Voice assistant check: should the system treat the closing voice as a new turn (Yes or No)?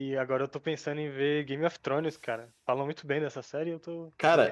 Yes